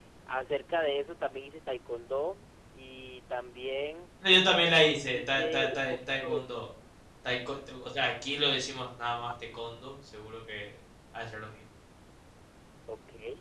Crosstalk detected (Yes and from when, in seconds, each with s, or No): Yes, from 5.0 s